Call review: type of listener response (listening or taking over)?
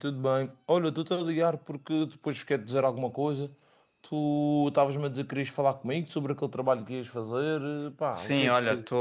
taking over